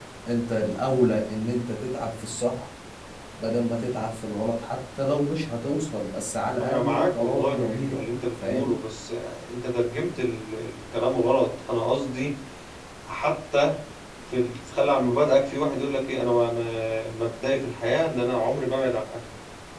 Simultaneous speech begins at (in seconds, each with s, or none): 6.6 s